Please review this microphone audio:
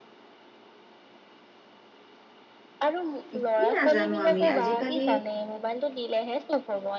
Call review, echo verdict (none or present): present